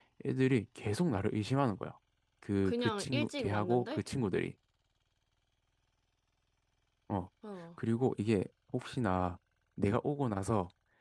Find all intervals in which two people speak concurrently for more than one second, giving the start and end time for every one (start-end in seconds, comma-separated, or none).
2.6-4.0